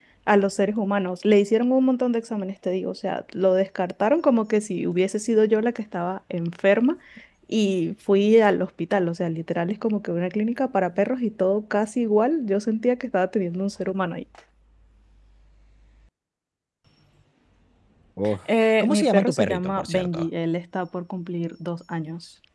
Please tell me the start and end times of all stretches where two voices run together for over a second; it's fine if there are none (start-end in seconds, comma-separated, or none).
18.8-20.3